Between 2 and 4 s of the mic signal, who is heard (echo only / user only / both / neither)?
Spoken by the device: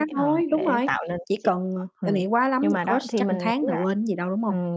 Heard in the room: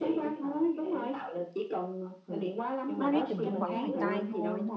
both